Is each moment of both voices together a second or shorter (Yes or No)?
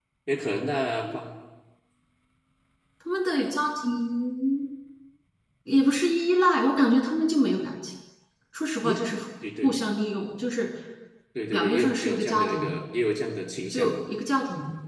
No